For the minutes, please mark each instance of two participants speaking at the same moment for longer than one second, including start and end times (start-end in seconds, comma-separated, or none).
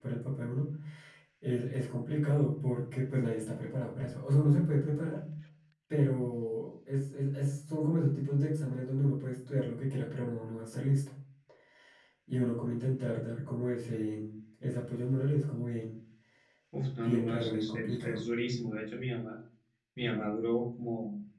17.0-18.2